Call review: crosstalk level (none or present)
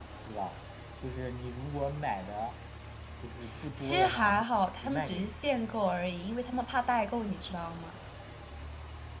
present